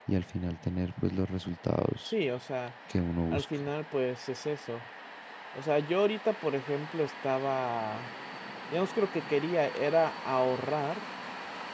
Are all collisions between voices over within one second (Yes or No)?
Yes